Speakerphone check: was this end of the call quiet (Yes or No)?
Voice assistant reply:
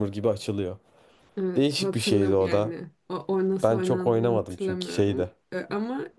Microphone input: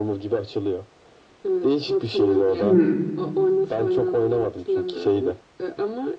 No